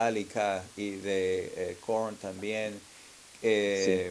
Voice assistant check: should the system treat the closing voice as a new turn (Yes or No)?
Yes